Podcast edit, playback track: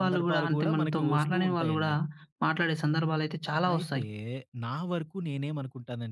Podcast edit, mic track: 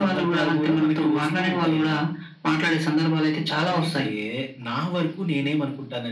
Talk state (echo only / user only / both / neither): echo only